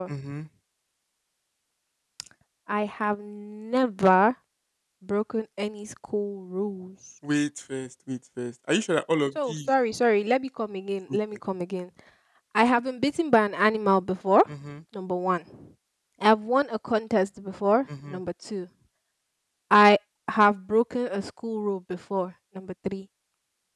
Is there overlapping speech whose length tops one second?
No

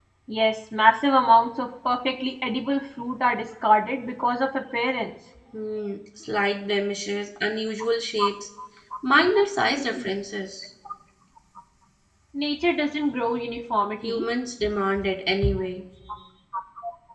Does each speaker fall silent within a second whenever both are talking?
Yes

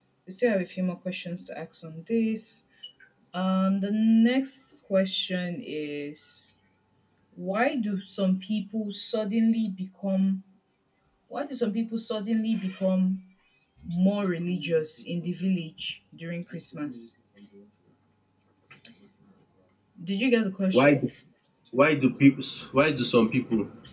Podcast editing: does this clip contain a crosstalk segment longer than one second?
No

